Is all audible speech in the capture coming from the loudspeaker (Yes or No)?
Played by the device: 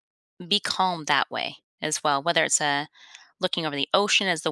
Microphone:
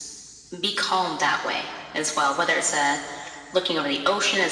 Yes